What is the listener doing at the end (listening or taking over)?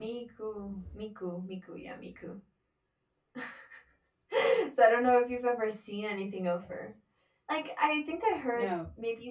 listening